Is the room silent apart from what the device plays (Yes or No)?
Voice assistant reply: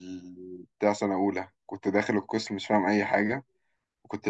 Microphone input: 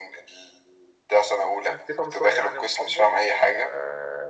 No